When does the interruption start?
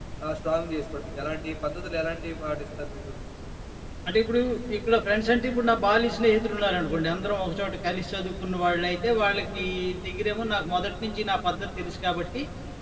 none

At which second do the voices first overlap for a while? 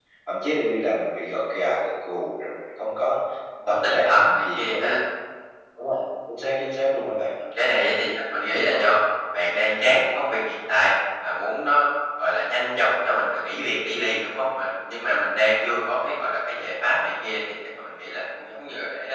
3.7 s

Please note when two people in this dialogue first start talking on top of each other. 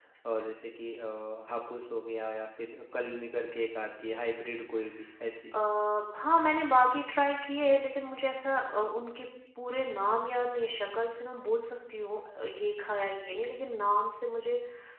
none

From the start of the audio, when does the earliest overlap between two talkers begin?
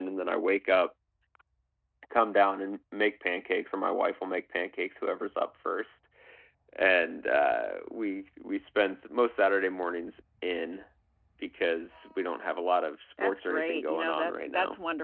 13.2 s

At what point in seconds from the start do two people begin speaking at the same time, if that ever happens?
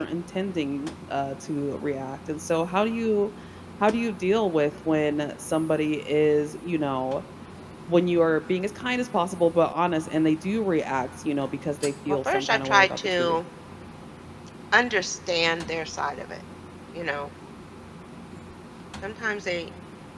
12.1 s

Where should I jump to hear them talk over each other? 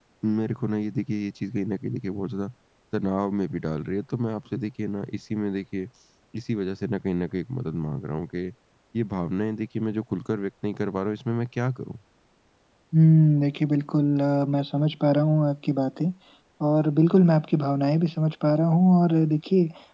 none

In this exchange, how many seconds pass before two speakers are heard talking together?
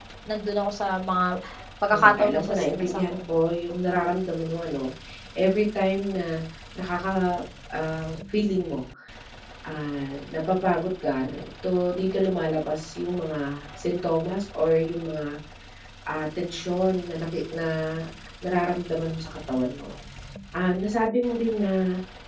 1.9 s

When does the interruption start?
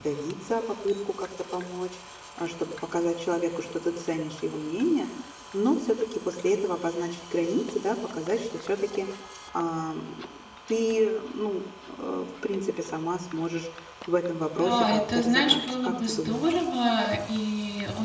14.6 s

